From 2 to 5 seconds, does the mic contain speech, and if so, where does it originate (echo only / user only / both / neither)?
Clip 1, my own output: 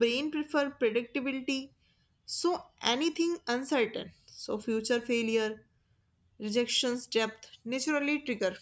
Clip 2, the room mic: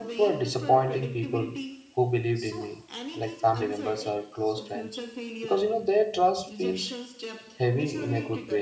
both